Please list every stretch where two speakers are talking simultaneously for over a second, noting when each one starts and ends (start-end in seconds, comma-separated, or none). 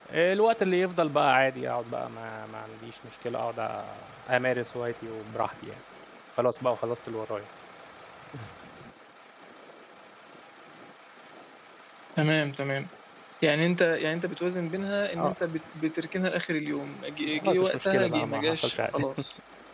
17.3-18.9